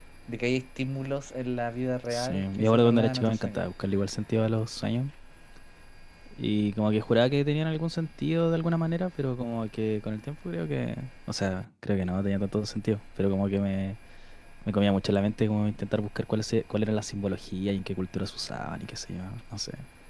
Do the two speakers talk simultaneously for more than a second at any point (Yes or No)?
Yes